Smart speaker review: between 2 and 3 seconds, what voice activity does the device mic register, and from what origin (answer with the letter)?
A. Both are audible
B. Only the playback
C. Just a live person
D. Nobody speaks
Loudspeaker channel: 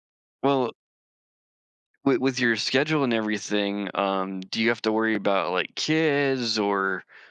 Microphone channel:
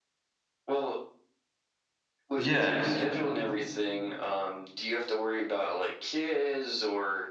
A